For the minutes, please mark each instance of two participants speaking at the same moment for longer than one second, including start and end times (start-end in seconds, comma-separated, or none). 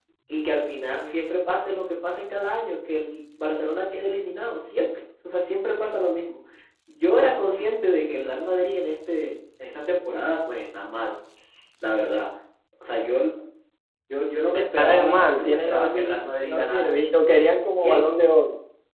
14.5-17.0